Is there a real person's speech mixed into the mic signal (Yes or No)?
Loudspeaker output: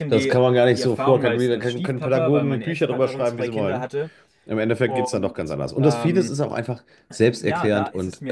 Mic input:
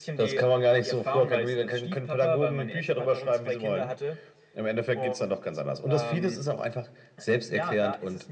No